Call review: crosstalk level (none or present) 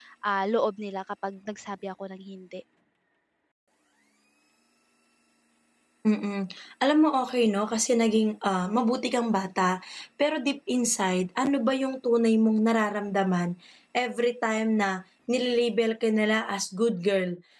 none